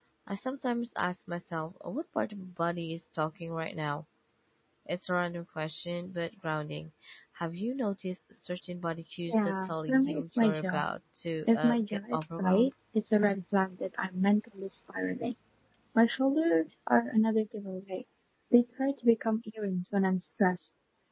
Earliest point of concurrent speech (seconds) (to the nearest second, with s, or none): 9 s